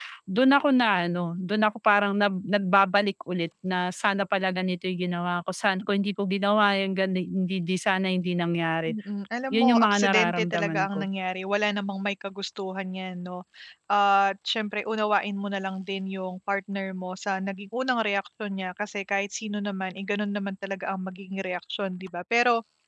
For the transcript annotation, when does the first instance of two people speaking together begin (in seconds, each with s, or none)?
9.5 s